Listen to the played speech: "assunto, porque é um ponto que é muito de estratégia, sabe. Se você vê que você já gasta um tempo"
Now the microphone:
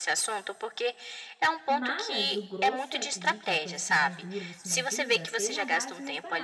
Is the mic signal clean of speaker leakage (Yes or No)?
No